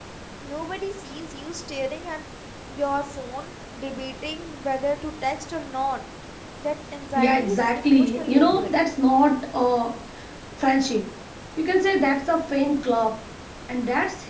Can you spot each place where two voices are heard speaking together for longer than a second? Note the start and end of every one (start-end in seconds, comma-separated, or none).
7.2-8.7